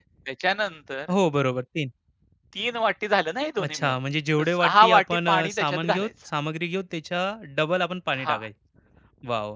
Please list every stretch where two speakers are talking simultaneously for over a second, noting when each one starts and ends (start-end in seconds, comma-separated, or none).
4.6-6.1